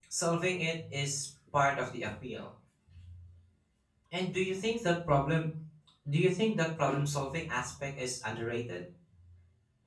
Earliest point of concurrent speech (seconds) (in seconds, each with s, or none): none